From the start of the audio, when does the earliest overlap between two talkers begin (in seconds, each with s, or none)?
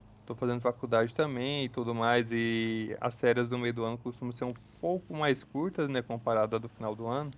none